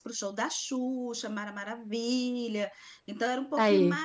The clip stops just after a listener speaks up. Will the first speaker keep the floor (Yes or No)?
Yes